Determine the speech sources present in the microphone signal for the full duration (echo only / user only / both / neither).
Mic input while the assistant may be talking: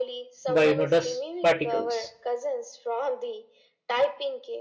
both